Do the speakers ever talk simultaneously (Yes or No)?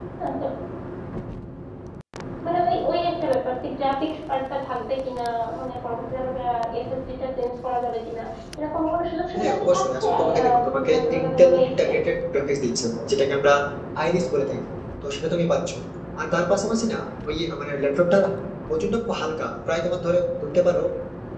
Yes